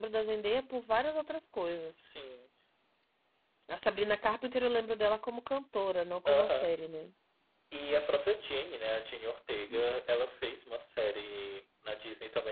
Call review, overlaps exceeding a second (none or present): none